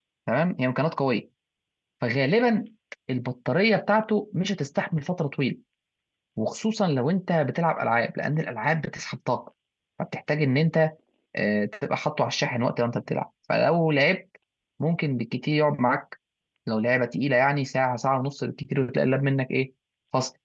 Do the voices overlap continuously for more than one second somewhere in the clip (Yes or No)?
No